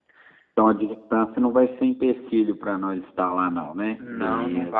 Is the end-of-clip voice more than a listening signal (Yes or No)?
Yes